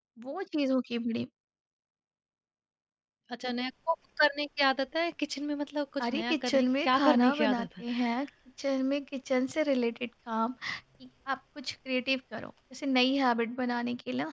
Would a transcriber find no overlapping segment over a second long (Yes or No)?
No